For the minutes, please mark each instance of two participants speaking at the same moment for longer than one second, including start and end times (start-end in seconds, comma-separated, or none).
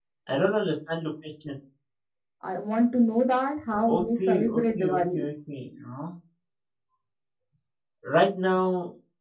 3.9-5.2